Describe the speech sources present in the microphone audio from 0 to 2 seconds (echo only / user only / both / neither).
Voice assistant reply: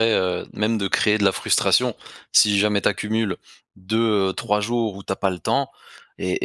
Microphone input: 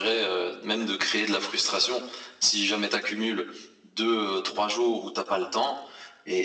echo only